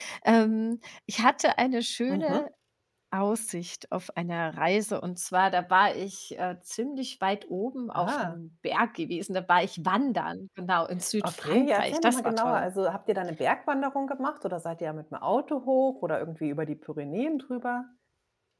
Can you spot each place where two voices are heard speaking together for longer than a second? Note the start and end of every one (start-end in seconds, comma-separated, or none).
11.2-12.7